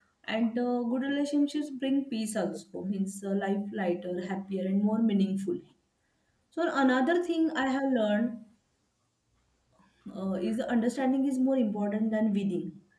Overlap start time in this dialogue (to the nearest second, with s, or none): none